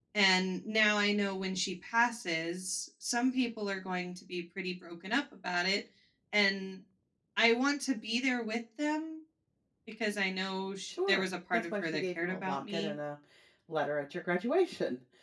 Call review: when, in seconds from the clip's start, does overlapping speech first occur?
11 s

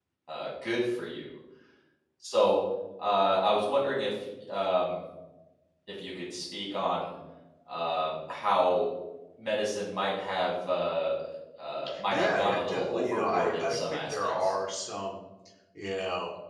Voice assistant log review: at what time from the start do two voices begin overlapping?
12 s

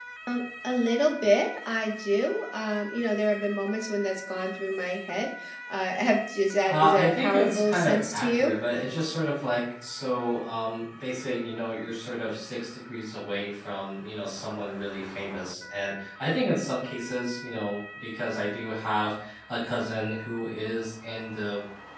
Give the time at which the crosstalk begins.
7 s

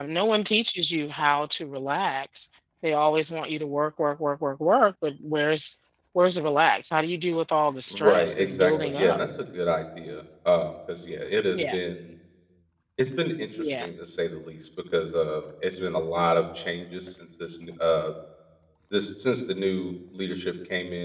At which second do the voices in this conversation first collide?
8 s

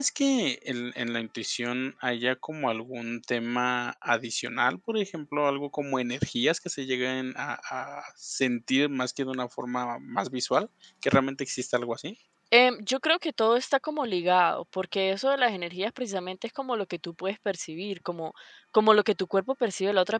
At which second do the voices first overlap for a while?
none

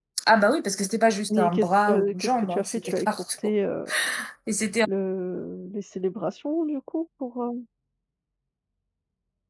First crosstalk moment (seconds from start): 1 s

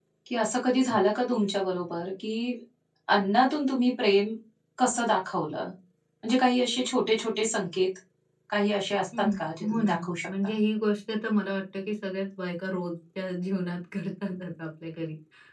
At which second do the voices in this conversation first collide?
9 s

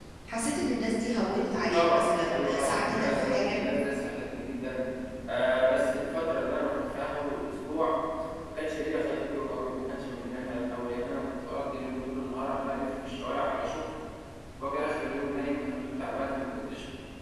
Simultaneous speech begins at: 2 s

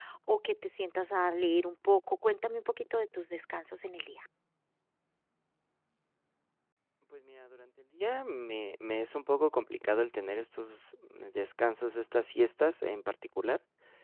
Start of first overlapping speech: none

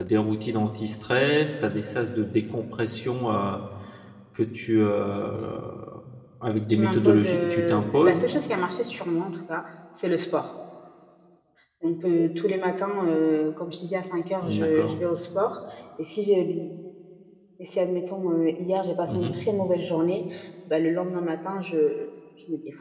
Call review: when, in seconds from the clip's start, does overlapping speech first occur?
7 s

